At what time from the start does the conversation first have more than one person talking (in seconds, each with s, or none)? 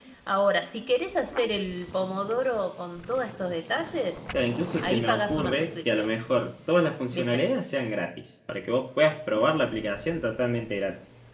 4.8 s